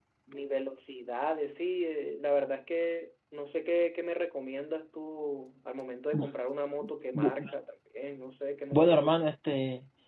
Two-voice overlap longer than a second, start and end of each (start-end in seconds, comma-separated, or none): none